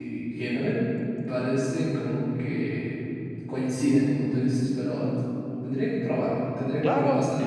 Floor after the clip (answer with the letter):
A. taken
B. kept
A